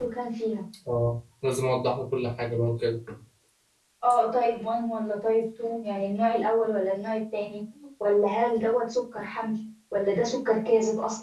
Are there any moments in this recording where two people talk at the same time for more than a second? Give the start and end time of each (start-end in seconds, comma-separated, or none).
none